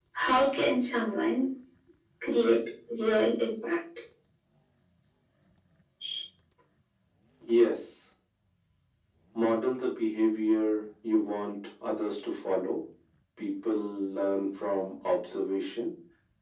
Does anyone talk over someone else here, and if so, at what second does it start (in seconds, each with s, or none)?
none